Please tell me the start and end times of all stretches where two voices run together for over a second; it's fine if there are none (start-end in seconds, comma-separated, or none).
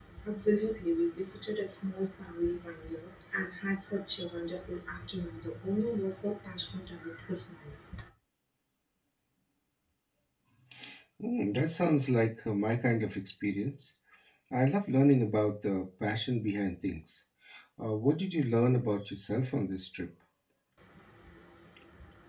none